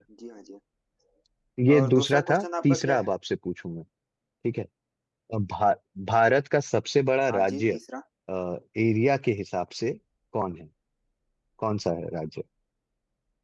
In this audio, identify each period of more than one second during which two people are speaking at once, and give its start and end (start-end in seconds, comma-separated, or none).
1.8-3.1